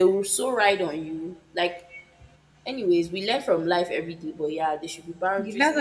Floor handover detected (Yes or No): Yes